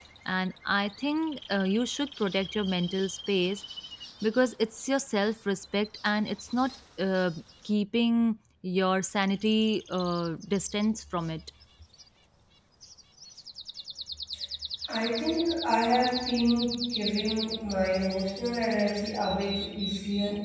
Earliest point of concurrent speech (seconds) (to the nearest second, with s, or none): none